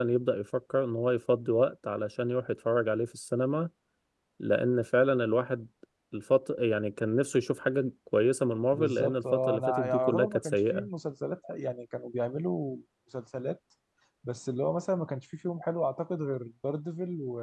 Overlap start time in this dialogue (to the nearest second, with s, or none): 9 s